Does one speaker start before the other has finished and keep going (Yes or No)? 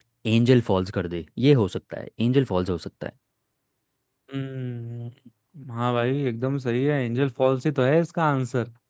No